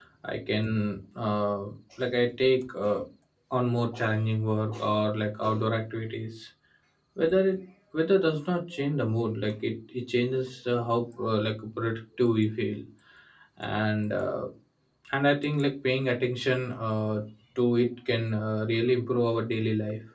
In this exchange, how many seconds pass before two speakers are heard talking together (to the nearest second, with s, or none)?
none